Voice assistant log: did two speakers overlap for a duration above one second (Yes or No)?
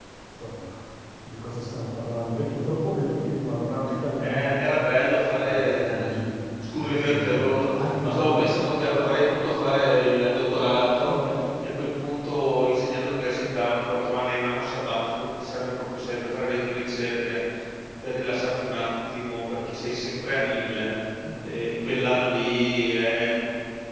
Yes